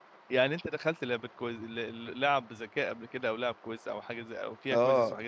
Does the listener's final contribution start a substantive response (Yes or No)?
Yes